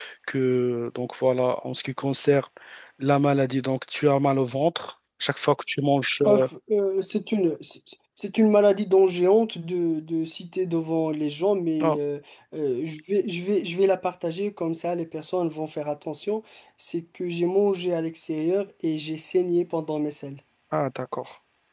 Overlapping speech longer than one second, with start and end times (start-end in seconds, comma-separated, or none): none